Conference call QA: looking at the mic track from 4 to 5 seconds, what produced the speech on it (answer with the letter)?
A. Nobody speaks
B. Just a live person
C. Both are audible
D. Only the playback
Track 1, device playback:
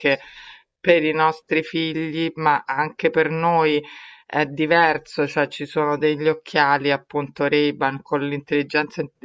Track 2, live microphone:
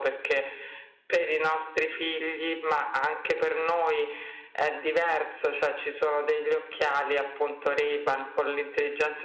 D